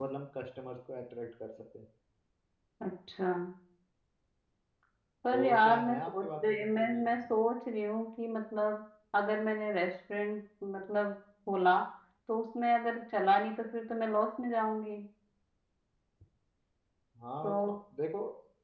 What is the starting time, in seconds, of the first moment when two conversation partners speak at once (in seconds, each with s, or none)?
5.3 s